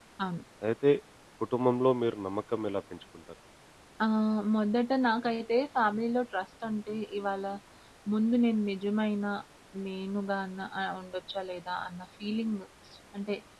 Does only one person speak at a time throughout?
Yes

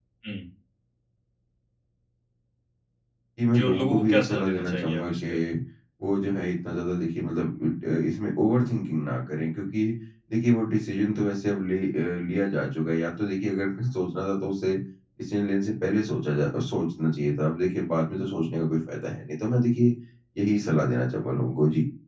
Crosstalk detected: Yes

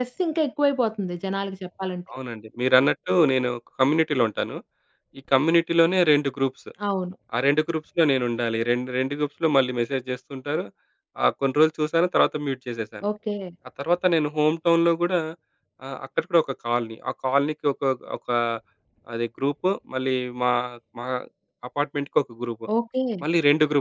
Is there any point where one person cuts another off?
No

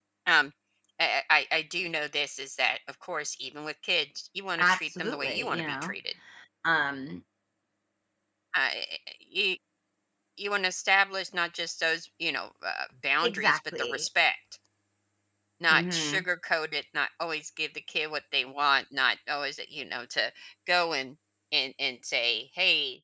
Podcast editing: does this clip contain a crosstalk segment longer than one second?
Yes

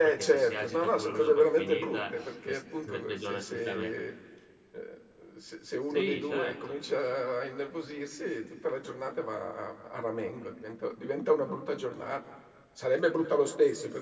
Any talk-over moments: Yes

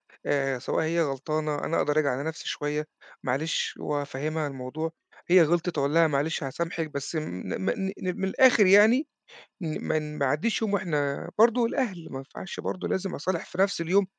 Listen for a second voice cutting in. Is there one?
No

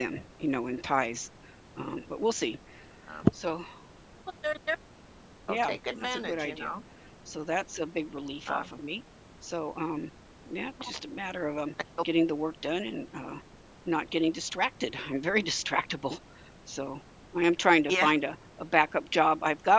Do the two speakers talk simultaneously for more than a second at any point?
Yes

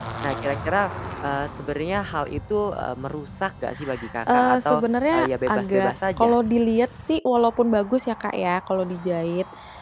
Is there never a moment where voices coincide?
No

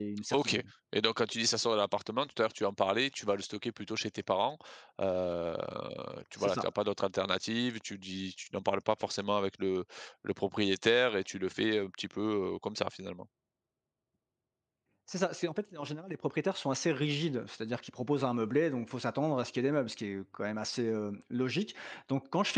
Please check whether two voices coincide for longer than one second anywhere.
No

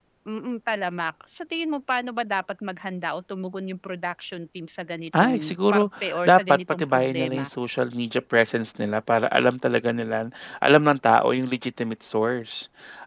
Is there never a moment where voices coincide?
No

